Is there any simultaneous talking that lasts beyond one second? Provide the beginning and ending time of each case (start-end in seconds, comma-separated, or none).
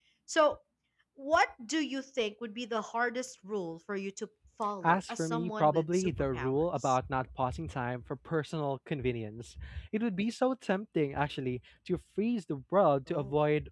4.8-7.0